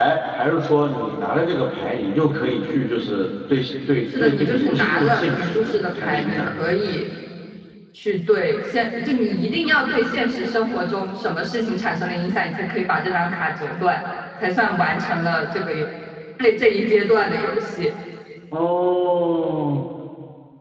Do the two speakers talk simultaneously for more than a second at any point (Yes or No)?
Yes